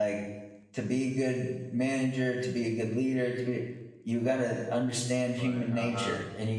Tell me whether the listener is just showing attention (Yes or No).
Yes